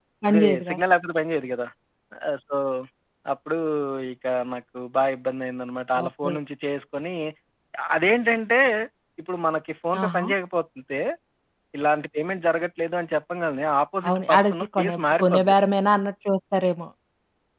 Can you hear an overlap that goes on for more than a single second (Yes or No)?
Yes